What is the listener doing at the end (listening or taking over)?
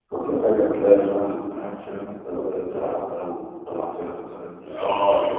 taking over